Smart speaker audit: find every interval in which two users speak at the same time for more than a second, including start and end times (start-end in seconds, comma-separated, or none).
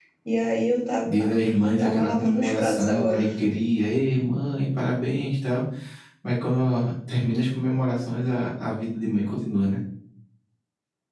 1.8-3.2